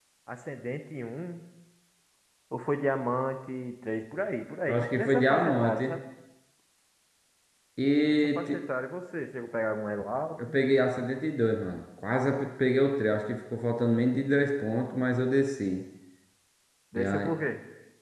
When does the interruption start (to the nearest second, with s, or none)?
5 s